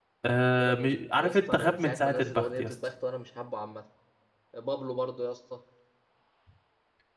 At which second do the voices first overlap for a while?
0.6 s

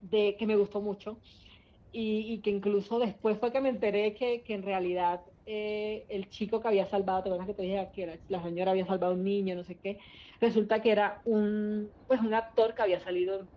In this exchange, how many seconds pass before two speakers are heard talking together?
none

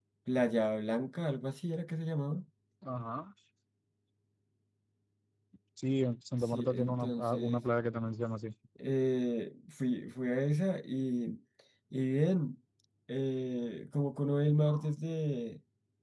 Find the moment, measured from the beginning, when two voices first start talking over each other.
6.4 s

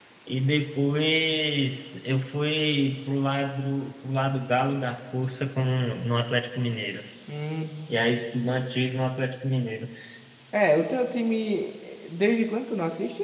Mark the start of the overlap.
none

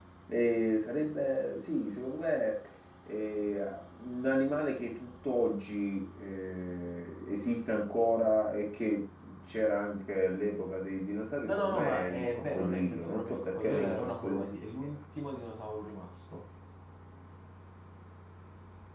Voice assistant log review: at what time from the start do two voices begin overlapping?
11.4 s

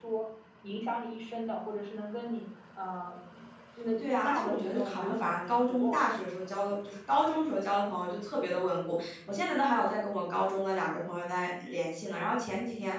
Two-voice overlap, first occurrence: 4.0 s

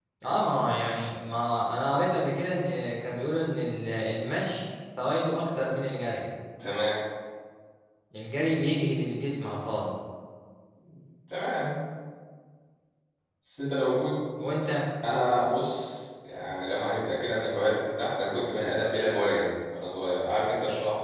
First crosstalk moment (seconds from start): none

